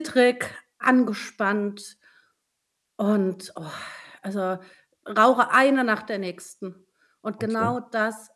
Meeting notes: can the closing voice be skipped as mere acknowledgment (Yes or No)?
Yes